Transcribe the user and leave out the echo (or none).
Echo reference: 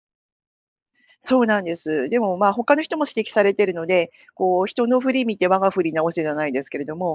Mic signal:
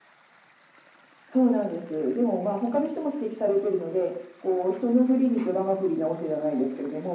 none